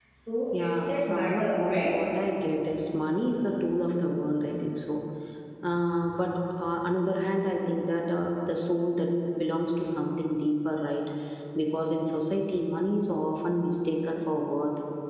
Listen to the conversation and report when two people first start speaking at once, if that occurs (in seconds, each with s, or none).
0.6 s